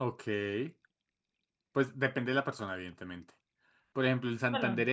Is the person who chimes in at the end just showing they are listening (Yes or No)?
Yes